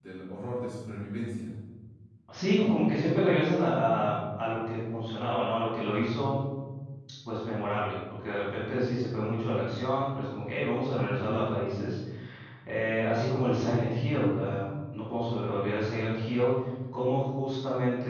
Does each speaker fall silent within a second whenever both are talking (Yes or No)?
Yes